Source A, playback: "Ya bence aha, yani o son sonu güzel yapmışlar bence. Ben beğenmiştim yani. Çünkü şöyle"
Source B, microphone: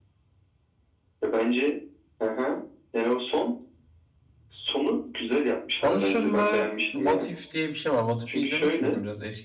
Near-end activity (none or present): present